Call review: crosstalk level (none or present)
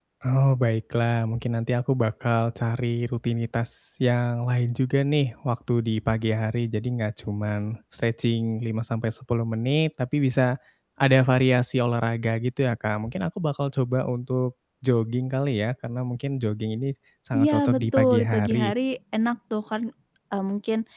present